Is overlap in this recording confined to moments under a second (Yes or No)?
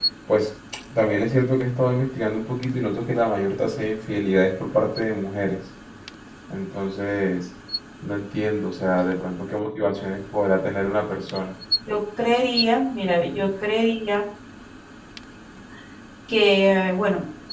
Yes